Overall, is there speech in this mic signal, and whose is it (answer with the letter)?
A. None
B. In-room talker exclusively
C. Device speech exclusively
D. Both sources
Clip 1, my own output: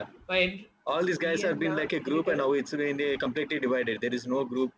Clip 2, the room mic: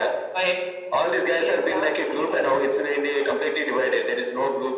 C